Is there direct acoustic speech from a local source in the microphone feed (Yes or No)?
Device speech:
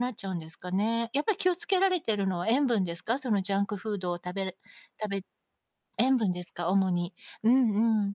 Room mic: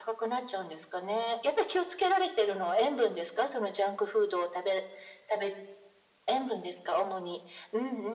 No